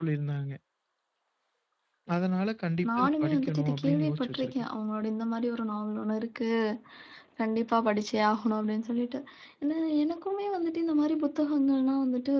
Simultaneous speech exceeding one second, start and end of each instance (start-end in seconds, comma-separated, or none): 3.0-4.5